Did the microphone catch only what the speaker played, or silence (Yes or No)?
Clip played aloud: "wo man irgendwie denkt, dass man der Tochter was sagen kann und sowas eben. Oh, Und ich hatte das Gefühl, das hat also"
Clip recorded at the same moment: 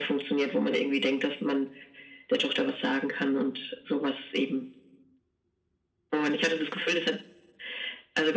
Yes